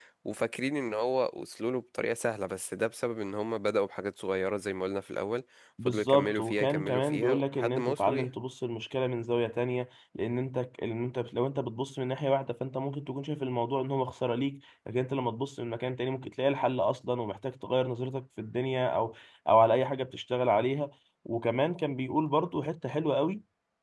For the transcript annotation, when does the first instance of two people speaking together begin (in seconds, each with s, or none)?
5.9 s